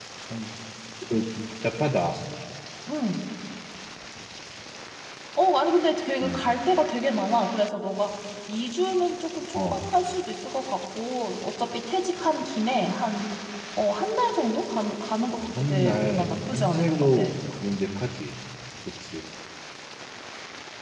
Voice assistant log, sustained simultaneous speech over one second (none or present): present